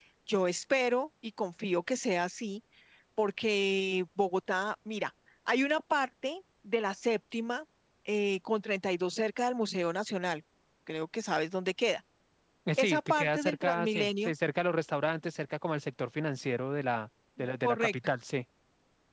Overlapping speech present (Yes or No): Yes